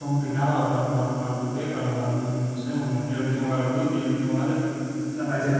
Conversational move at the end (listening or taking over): listening